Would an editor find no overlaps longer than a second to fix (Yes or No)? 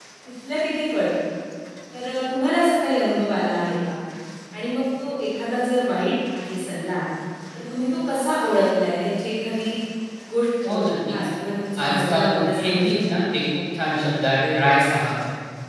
No